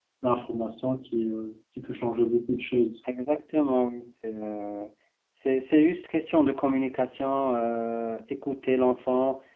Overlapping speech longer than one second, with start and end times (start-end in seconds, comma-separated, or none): none